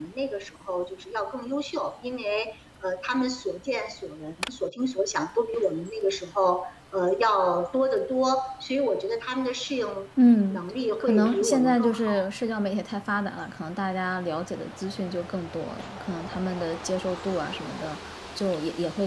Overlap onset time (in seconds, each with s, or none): 11.0 s